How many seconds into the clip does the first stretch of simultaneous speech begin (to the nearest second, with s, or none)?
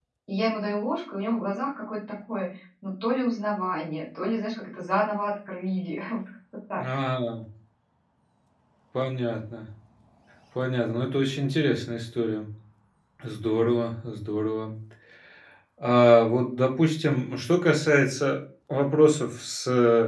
none